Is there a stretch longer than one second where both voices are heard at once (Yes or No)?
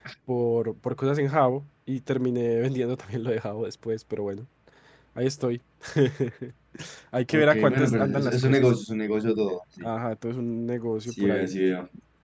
Yes